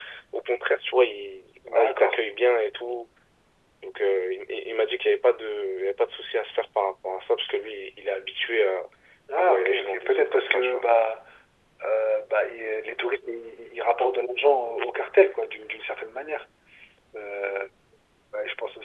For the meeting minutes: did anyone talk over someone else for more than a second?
Yes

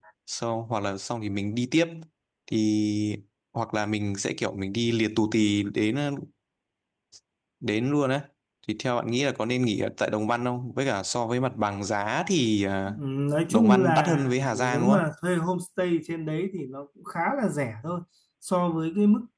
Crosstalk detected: Yes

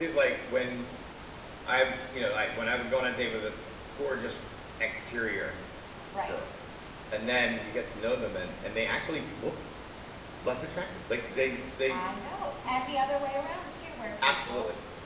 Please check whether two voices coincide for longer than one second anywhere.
No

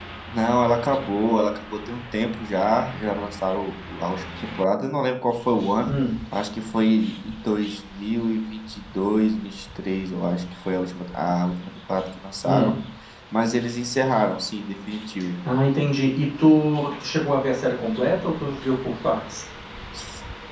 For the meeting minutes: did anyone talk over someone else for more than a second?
No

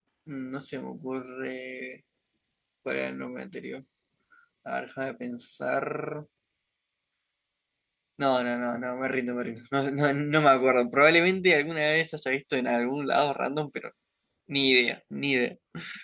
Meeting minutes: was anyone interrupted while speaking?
No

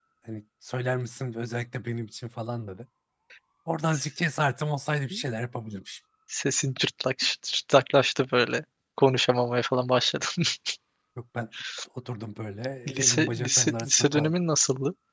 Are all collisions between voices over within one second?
No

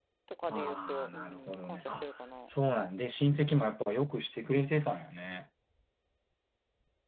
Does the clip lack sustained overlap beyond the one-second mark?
No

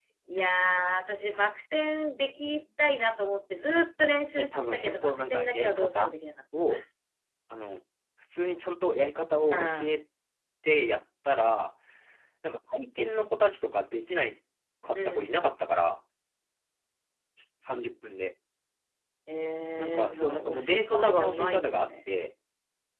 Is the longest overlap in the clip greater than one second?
Yes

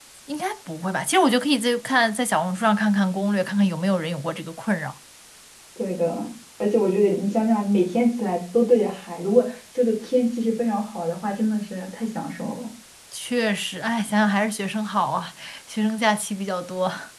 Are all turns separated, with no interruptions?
Yes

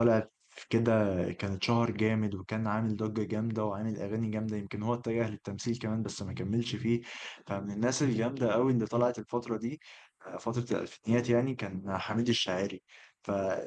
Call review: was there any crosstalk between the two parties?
No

